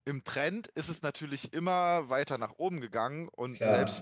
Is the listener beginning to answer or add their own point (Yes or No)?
No